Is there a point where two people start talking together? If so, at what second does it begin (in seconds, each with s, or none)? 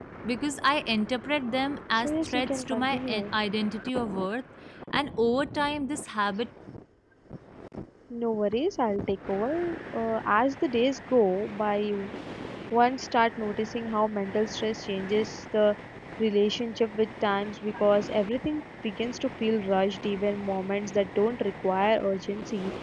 2.0 s